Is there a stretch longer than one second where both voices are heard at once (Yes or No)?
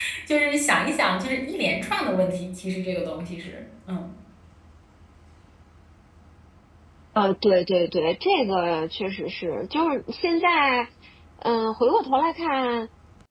No